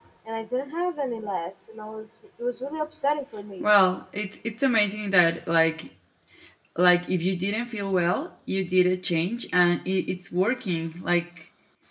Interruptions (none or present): none